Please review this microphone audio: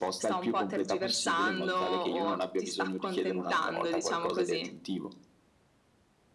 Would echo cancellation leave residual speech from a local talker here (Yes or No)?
No